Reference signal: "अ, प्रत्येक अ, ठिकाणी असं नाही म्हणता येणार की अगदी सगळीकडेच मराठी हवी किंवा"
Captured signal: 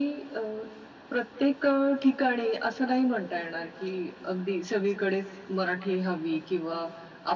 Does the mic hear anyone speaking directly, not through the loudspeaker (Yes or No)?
No